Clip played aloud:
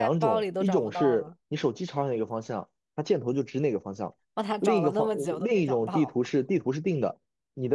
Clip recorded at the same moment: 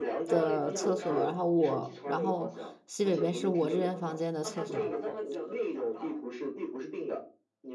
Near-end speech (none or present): present